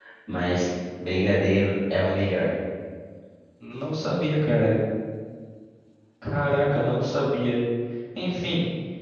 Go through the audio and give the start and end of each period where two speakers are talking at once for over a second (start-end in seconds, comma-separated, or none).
none